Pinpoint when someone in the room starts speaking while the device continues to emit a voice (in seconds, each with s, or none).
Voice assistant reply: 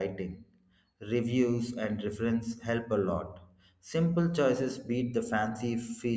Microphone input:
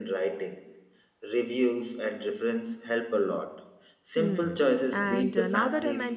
4.1 s